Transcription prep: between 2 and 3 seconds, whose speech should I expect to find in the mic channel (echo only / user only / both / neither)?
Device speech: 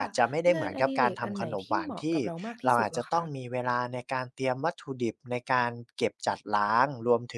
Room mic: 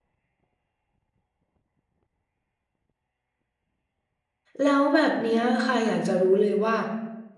neither